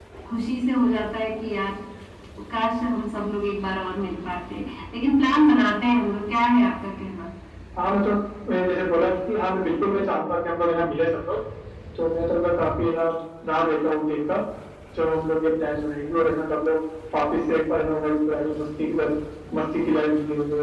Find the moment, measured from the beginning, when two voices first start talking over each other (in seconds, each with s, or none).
none